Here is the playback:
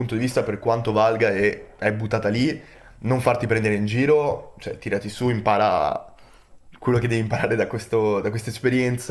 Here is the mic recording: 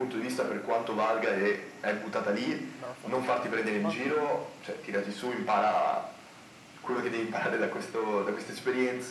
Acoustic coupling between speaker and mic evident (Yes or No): Yes